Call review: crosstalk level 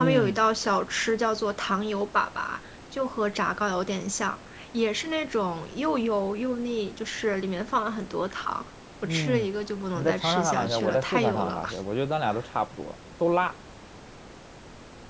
present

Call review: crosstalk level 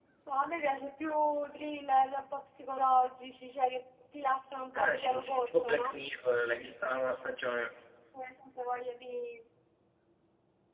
present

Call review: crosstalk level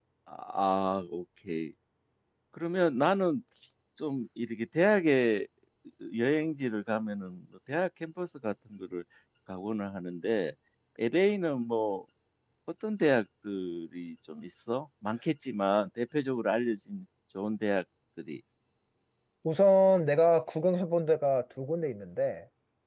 none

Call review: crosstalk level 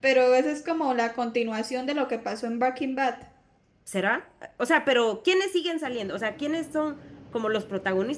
none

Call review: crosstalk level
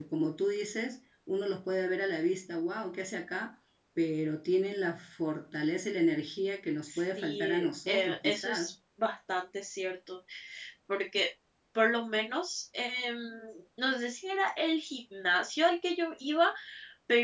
present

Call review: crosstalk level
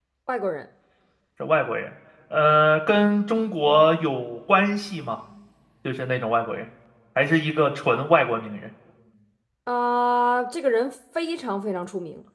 none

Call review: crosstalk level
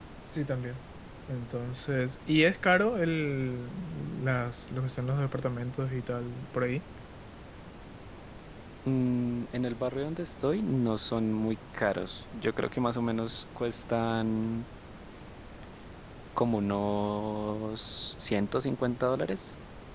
none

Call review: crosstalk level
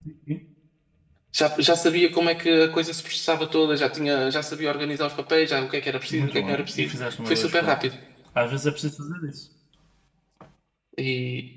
present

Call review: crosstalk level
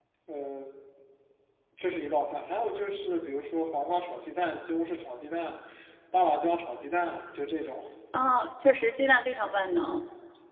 none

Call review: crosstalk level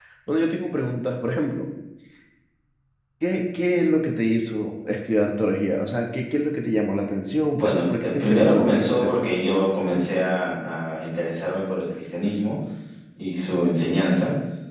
present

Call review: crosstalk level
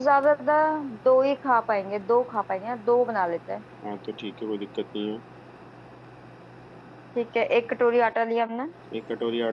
none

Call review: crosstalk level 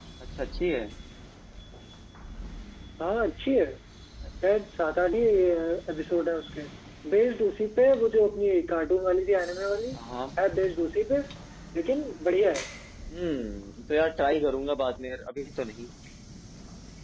none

